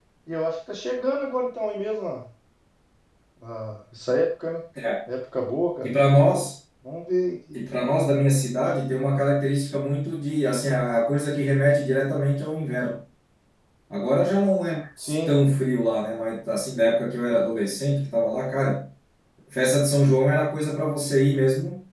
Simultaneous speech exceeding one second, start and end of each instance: none

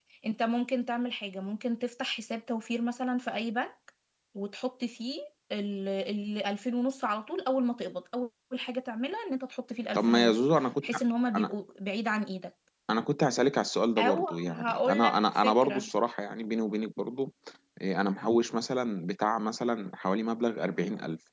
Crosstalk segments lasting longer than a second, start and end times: 14.0-15.9

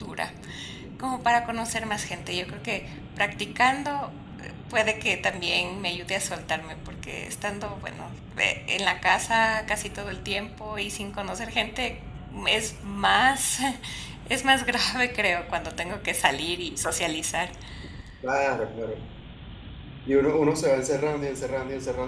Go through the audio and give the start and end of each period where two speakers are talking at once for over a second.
none

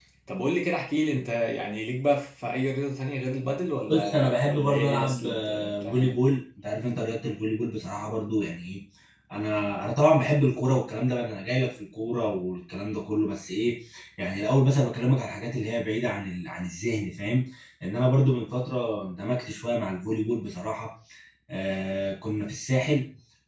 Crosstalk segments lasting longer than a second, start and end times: 3.9-6.2

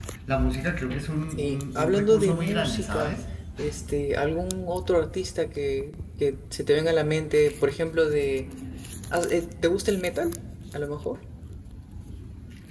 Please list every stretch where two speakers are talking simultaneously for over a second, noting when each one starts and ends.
1.3-3.2

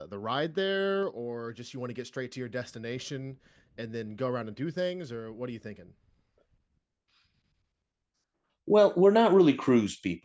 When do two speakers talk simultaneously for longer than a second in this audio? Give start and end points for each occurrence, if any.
none

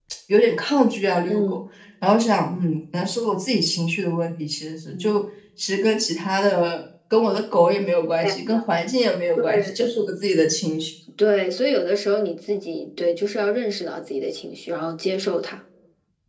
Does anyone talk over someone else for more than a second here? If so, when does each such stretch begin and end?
none

